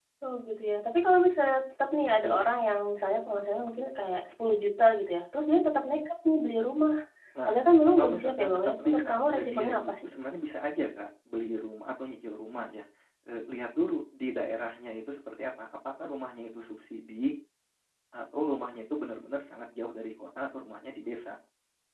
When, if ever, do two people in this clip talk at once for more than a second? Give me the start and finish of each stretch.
8.0-10.1

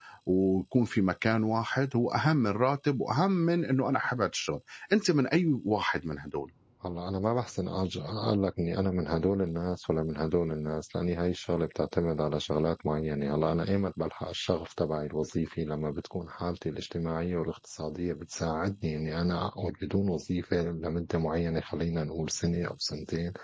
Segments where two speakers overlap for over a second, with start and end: none

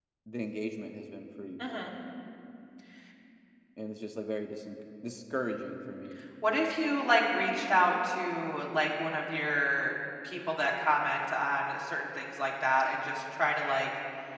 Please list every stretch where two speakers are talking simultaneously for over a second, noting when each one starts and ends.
none

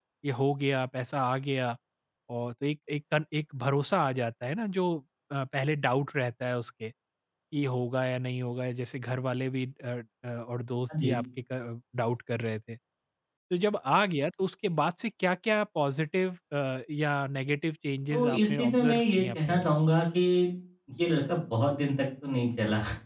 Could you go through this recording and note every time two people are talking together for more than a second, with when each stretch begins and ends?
18.1-19.8

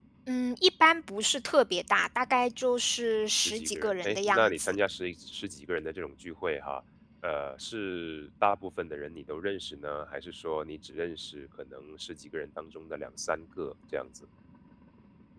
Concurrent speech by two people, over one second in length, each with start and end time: 3.3-4.8

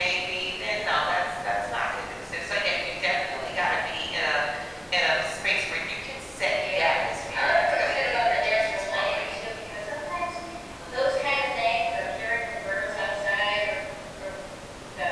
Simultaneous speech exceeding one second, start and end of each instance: 7.3-9.4

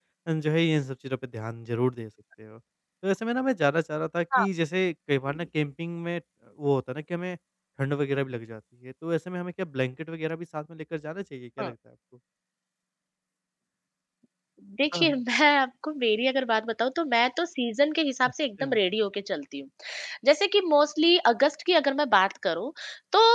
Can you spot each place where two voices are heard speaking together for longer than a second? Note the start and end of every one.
none

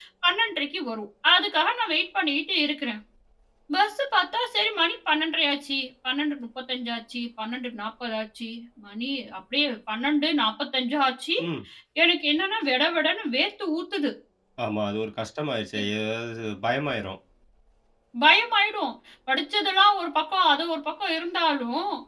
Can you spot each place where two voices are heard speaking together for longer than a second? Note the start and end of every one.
none

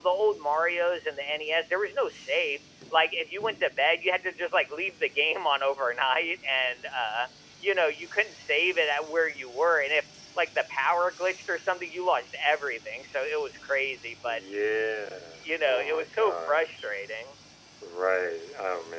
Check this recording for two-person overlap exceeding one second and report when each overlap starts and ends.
15.3-16.9

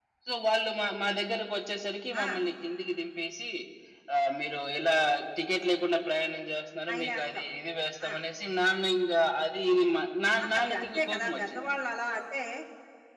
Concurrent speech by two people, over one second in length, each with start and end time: 10.4-11.8

